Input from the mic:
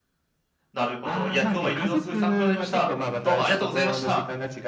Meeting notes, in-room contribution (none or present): present